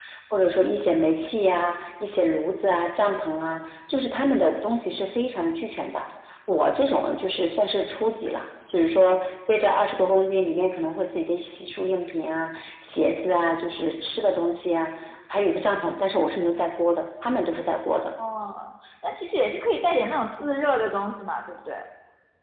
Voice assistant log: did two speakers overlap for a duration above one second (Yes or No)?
No